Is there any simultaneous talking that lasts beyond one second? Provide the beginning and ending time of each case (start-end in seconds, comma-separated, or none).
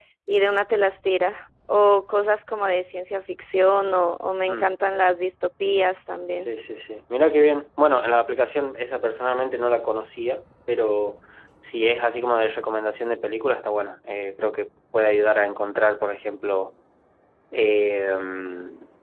none